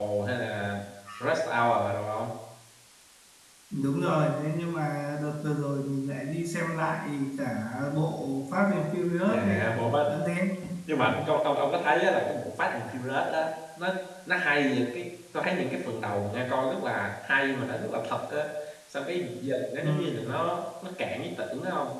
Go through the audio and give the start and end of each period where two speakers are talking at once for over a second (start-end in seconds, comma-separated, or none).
none